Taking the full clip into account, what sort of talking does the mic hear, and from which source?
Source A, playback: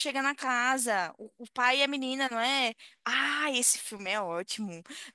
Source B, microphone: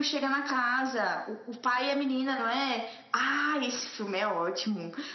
echo only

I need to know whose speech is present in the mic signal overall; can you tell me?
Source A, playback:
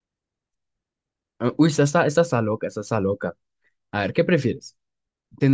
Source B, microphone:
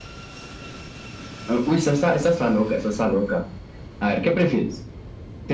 echo only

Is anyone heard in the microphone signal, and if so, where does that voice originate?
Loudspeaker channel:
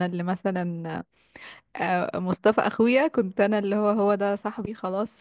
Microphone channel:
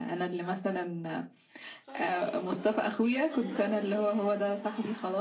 both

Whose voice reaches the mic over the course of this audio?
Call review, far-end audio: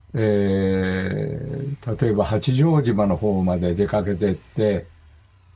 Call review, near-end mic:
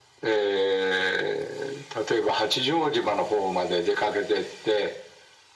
echo only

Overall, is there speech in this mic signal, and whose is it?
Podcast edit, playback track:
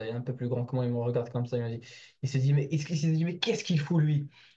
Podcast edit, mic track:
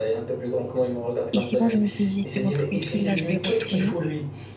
both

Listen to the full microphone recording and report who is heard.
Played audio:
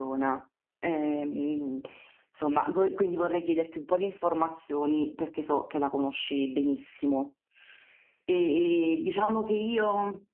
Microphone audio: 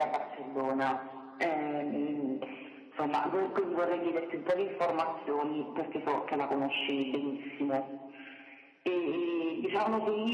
echo only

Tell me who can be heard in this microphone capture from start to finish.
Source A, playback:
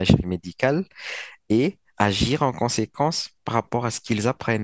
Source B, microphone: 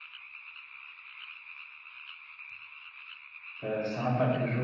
user only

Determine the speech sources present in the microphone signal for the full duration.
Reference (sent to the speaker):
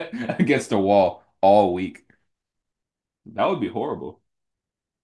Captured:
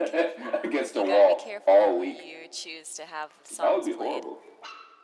both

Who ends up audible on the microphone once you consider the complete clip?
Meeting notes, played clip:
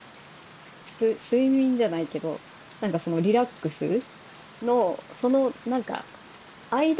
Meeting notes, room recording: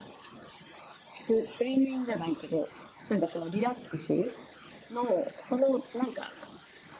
echo only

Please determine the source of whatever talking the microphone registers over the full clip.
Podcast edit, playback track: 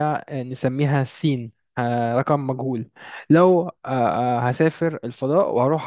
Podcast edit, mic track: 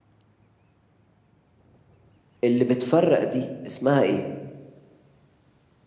user only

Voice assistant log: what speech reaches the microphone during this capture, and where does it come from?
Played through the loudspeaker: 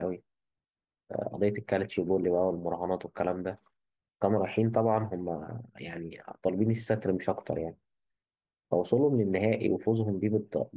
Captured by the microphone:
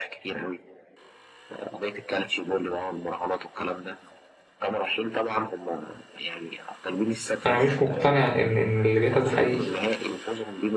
both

